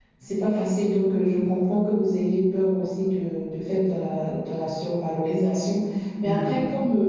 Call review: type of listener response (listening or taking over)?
listening